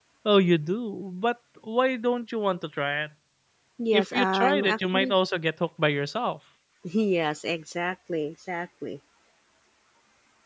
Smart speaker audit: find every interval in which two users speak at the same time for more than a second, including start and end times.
3.9-5.1

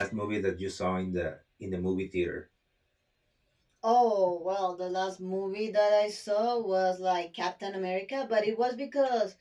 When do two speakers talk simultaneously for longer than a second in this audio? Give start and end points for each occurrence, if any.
none

